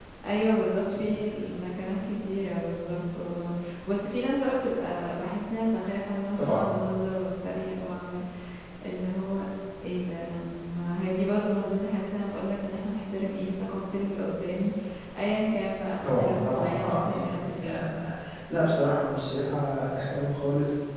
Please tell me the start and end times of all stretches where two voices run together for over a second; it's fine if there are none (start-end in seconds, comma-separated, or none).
16.0-17.9